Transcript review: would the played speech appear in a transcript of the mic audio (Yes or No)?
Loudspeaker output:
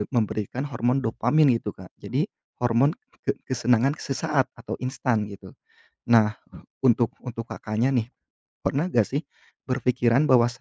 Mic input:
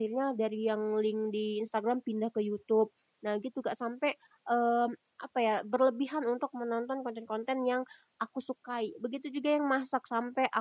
No